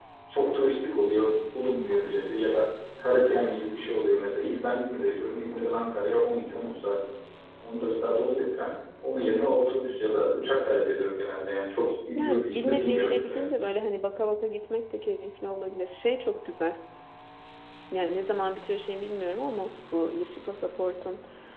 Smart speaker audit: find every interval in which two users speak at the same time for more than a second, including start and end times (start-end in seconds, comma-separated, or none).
12.2-13.6